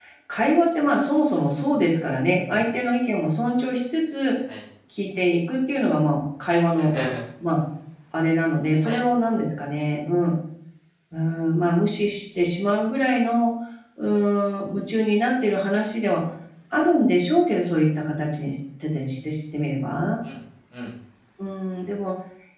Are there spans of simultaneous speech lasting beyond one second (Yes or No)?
No